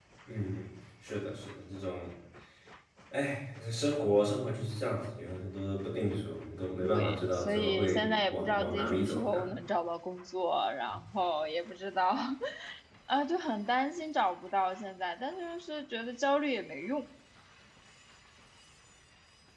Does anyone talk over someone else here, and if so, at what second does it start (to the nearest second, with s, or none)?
7 s